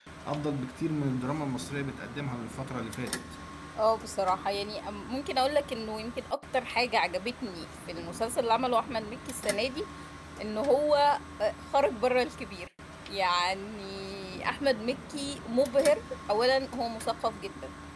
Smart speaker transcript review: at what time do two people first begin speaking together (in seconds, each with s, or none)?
none